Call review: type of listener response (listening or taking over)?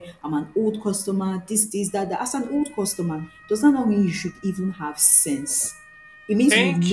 listening